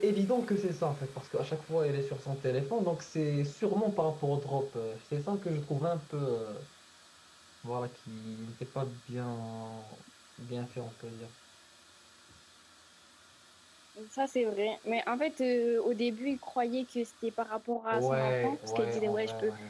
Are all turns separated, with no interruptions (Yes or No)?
No